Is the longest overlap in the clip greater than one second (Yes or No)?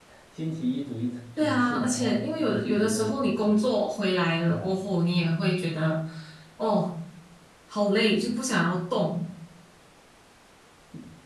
Yes